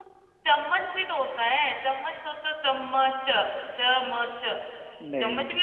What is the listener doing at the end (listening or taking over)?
listening